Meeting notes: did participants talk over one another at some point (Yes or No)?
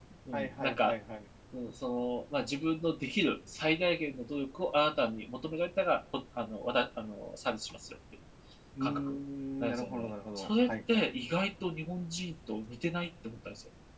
Yes